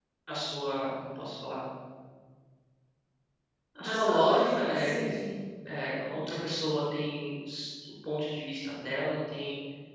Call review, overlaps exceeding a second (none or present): present